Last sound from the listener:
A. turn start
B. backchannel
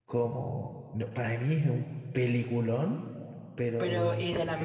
A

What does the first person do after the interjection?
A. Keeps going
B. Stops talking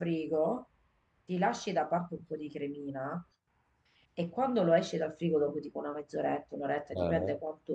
A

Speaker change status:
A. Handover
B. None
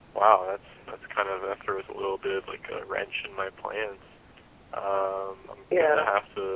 B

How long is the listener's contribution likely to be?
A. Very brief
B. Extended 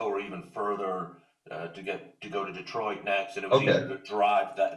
A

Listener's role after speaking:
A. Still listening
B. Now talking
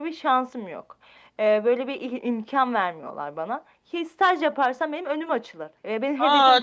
B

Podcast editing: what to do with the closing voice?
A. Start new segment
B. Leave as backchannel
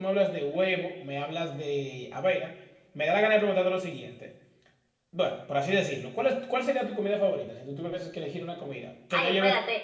A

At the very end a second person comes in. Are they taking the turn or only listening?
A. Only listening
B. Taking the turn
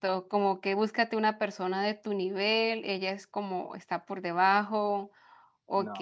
A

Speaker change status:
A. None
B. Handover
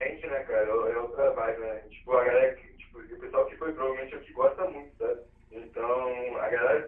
A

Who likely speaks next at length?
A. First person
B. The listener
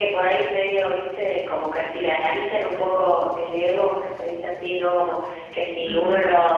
A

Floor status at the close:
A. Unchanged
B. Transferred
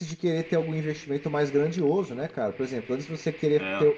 A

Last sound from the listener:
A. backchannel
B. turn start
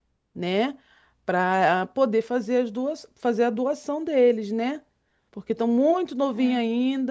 A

